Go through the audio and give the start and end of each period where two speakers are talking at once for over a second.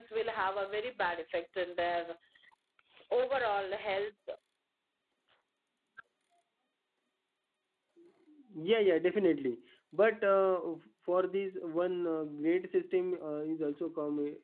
none

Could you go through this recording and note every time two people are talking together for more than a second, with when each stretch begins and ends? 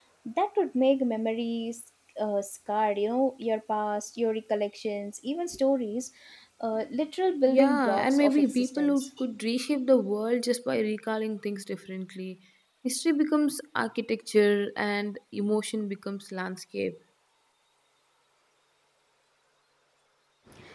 7.5-9.1

